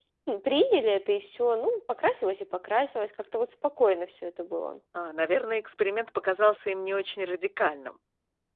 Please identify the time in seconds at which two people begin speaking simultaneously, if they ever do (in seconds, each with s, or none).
none